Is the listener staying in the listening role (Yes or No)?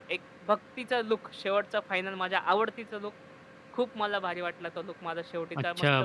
No